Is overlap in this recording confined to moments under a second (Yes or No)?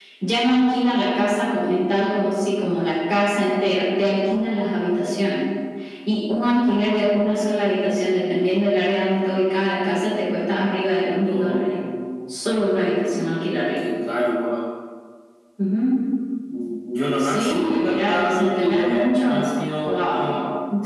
No